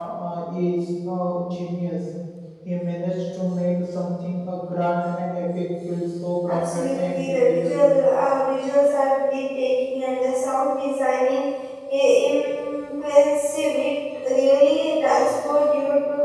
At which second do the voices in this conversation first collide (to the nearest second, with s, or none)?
6 s